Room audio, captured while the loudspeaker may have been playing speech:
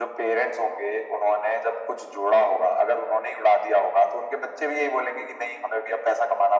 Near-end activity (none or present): none